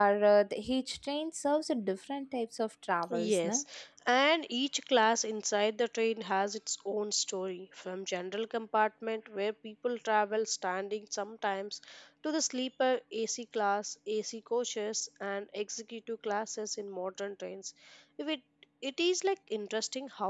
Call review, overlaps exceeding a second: none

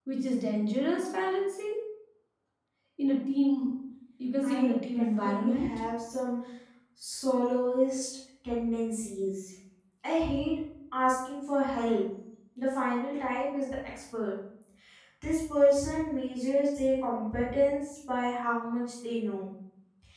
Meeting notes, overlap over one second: present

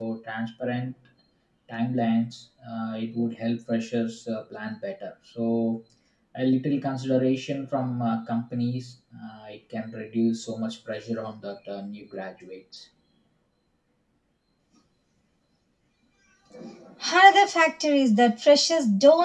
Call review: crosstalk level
none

